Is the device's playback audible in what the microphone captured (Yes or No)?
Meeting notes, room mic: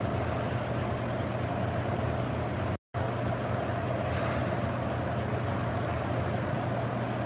No